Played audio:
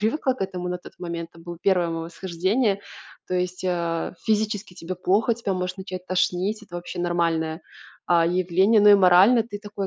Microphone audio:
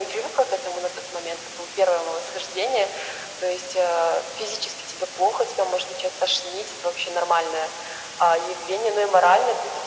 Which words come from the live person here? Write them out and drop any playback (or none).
none